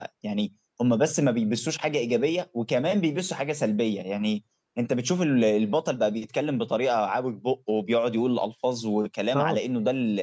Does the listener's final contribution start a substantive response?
No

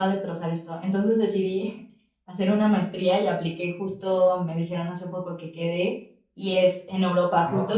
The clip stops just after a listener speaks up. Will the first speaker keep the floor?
Yes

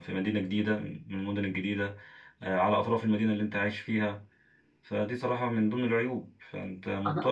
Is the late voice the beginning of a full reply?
No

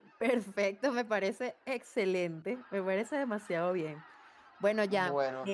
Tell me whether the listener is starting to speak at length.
No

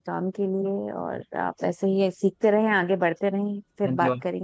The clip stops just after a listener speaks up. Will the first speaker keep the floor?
No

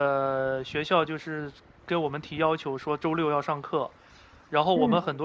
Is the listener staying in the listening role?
Yes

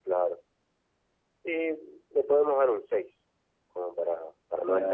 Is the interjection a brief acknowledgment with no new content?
No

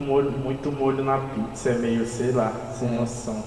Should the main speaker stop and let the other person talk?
Yes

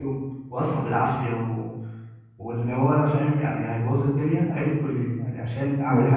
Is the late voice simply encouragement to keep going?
No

